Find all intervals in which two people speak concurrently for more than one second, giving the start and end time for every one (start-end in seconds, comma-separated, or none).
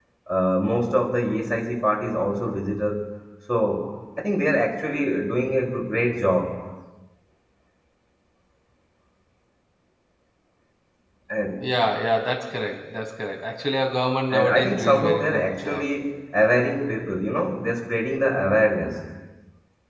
14.3-15.8